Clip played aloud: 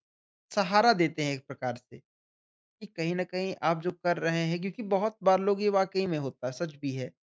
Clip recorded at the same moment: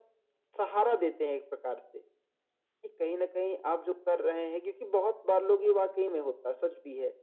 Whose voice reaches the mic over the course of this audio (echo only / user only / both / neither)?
echo only